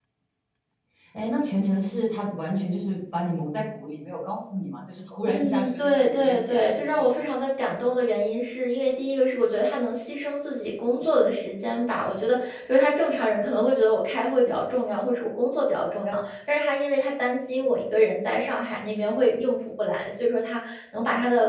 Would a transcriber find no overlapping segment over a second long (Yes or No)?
No